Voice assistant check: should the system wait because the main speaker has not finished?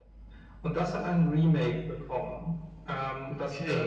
No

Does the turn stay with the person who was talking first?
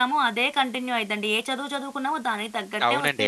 No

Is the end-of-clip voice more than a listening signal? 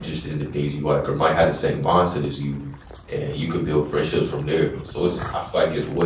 No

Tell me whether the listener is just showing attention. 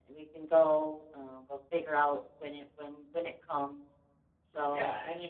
No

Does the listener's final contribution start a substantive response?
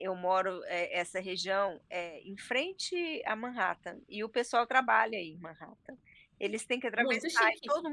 No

